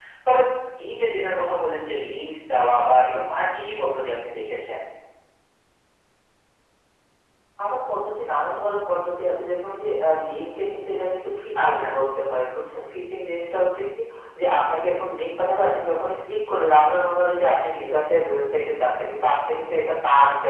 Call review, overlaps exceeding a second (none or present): none